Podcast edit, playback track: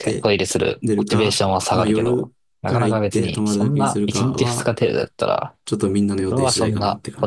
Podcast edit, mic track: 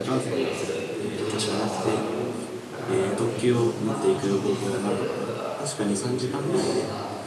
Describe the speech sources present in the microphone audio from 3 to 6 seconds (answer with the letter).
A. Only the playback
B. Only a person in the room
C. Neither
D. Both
D